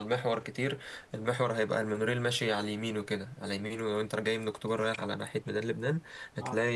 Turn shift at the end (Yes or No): No